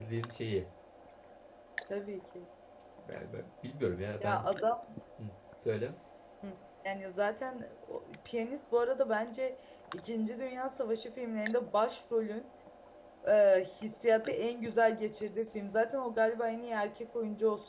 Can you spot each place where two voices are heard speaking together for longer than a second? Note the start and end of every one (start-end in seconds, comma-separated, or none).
none